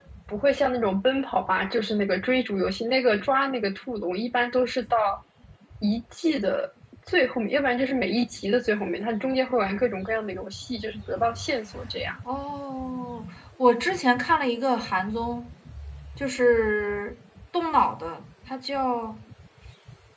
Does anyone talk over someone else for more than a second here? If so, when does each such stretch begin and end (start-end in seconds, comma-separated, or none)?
none